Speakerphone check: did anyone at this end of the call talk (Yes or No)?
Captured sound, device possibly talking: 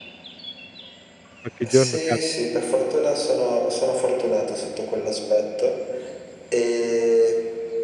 Yes